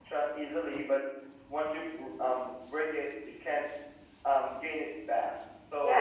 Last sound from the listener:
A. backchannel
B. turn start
B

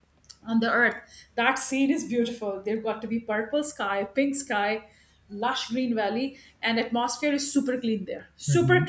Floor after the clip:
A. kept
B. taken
A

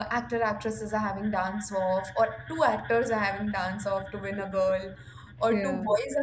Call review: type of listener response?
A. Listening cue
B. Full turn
A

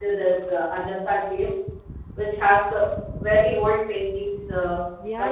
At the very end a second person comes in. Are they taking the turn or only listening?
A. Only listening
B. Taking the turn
B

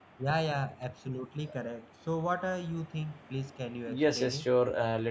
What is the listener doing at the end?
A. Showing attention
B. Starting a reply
B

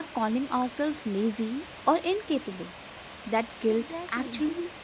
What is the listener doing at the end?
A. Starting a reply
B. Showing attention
B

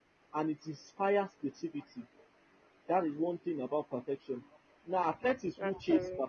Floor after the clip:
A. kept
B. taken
A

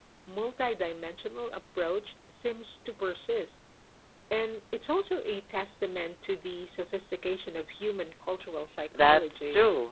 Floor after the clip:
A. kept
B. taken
B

